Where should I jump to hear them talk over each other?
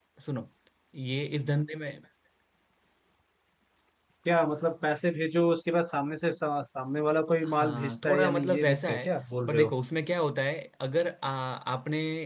7.4 s

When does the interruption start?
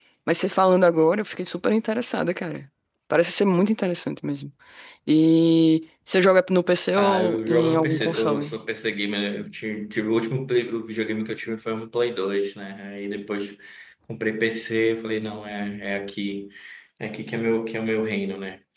7.0 s

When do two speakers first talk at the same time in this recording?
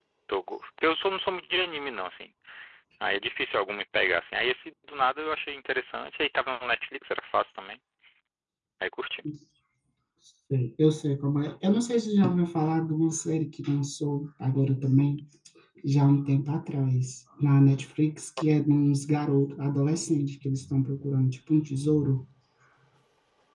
none

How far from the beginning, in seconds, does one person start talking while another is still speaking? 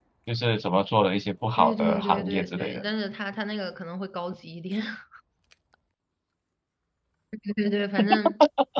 1.6 s

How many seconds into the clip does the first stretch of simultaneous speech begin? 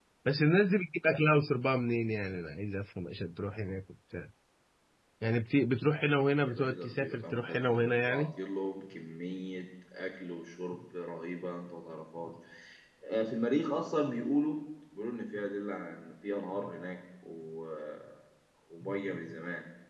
6.4 s

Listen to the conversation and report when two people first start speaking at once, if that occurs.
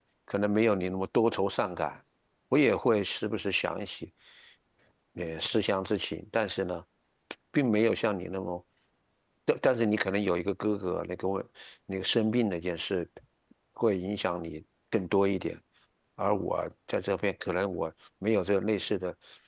none

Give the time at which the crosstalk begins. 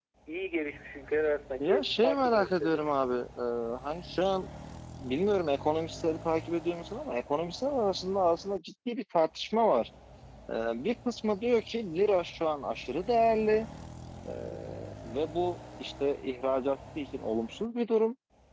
1.6 s

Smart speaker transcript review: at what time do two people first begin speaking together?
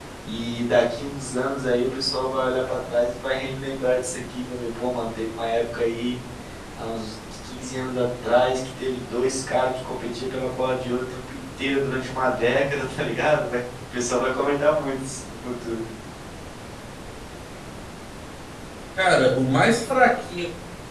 none

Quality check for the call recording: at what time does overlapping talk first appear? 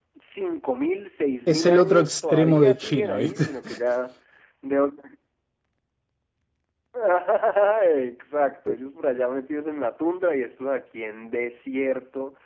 1.5 s

